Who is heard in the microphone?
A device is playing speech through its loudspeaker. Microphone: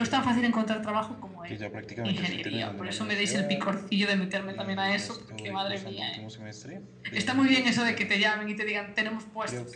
both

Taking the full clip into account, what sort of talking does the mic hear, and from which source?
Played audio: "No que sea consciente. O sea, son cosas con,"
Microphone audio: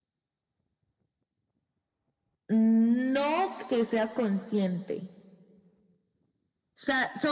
echo only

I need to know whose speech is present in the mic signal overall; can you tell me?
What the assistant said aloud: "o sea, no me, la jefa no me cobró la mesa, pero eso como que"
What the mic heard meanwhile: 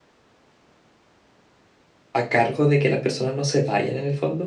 user only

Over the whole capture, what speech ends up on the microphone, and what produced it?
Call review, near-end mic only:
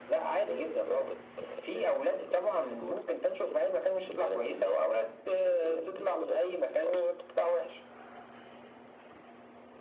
echo only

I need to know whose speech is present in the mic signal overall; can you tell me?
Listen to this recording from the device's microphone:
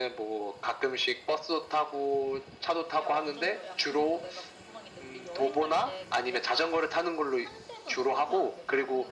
both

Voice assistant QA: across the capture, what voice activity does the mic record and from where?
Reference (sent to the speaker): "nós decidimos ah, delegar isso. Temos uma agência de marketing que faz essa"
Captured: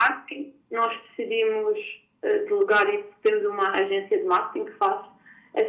echo only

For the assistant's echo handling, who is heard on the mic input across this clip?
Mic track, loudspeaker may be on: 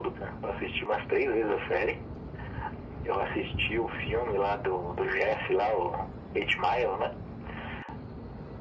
echo only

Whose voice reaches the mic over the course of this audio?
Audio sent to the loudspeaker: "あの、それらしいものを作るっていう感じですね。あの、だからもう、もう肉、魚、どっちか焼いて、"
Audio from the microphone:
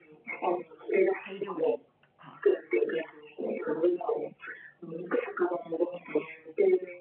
both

